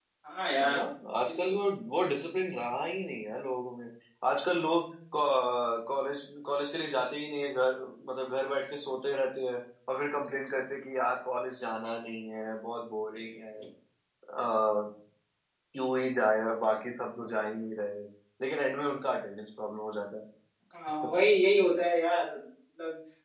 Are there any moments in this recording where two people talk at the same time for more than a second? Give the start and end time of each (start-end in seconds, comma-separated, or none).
none